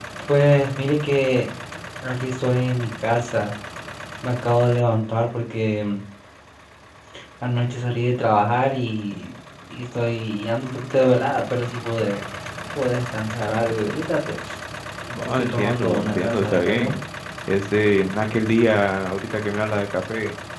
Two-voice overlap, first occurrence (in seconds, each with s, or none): 15.2 s